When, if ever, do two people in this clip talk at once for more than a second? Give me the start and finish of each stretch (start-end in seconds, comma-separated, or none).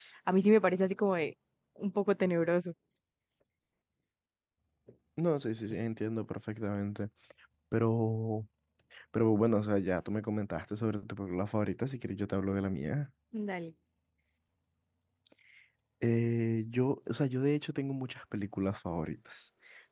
none